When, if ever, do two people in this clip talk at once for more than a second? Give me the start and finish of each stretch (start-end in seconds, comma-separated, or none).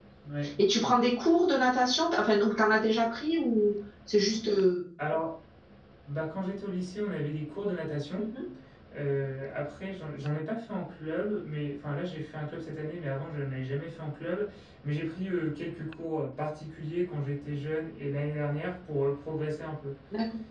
none